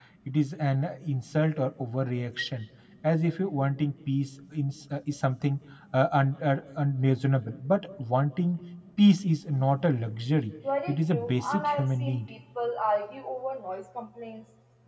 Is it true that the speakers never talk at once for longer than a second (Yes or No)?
No